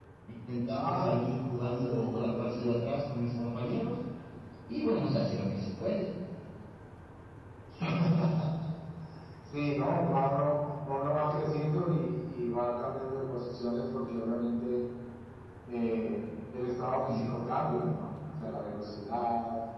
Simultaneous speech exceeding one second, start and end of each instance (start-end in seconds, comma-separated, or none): 0.7-2.7